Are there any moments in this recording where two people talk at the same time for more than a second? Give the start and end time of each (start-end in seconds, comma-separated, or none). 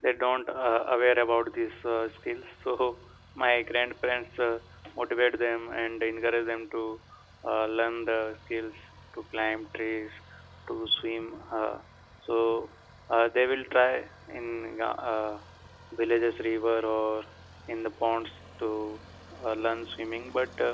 none